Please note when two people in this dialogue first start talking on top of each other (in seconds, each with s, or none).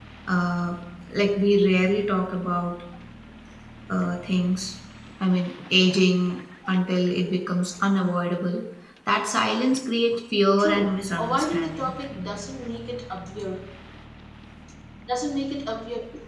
10.6 s